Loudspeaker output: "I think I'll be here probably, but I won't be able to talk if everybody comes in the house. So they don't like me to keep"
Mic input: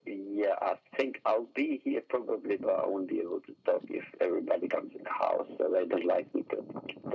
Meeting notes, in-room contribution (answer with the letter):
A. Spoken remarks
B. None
B